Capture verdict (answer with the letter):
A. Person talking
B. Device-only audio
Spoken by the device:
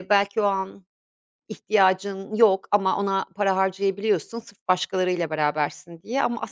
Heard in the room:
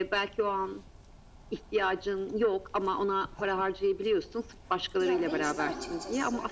A